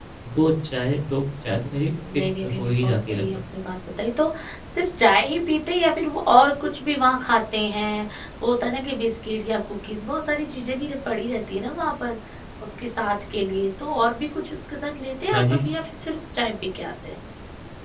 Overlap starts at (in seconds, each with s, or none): 1.9 s